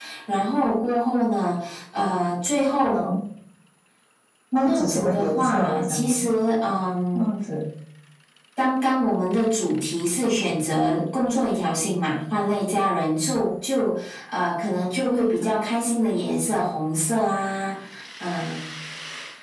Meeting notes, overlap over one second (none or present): present